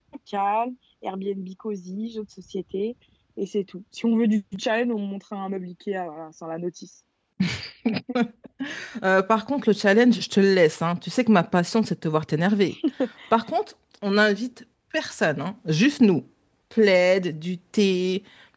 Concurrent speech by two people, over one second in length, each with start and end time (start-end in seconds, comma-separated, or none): none